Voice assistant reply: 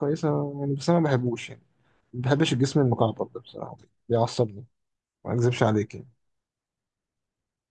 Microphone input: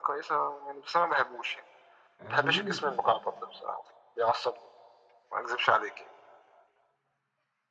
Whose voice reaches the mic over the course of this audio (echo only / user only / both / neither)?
both